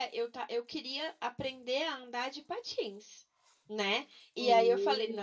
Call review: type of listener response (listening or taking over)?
listening